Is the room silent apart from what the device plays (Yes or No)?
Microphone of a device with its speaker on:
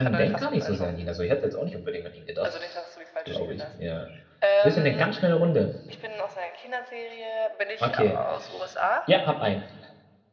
No